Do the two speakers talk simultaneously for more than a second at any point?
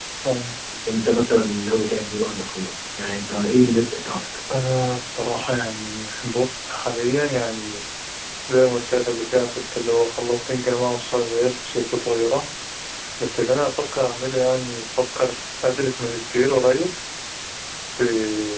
No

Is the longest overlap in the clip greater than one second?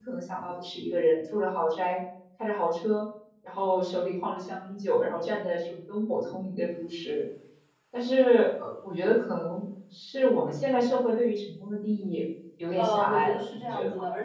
Yes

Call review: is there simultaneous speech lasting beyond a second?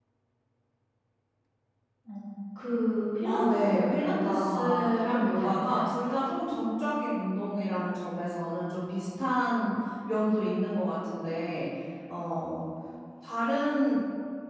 Yes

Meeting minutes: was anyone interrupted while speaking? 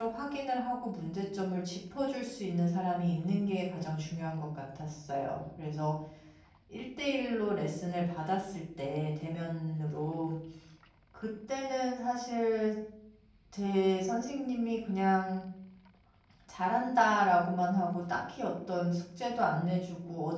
No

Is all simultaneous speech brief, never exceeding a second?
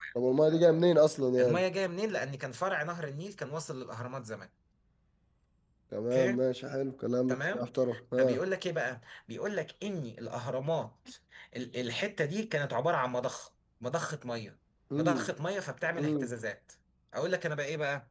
Yes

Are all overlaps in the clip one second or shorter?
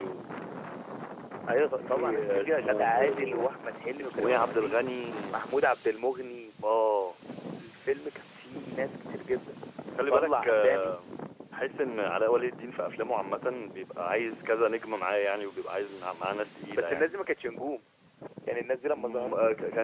No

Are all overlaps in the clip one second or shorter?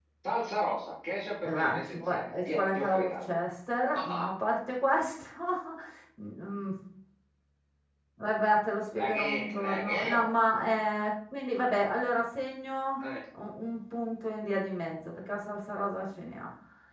No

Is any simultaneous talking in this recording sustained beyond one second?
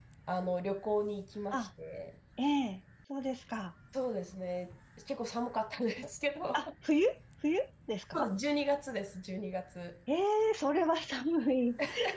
No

